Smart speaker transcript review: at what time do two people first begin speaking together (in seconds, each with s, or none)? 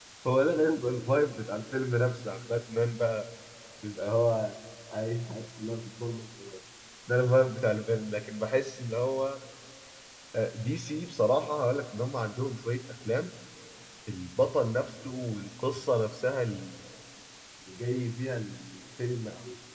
none